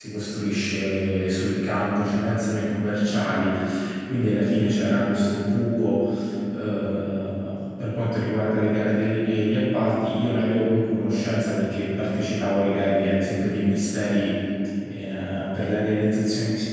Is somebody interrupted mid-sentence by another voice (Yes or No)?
No